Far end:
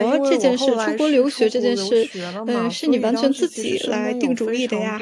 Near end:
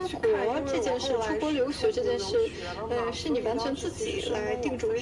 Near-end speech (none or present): none